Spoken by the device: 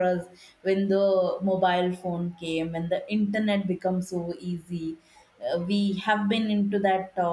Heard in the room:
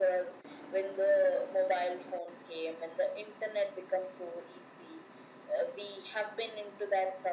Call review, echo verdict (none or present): present